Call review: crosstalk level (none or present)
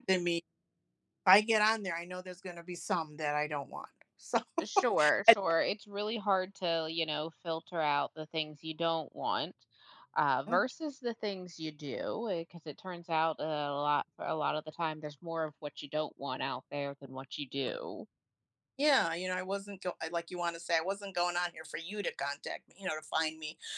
none